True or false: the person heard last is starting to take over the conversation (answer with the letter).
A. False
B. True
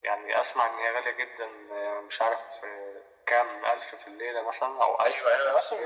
B